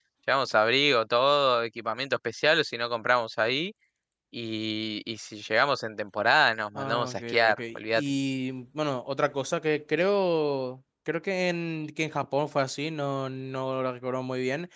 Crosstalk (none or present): present